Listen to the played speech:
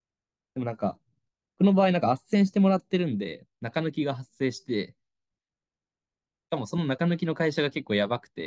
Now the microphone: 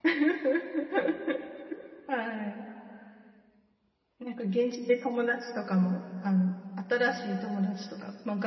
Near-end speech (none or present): present